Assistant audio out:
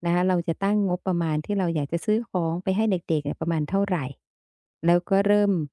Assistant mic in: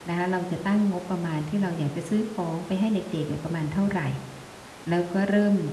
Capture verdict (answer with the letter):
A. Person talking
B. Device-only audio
B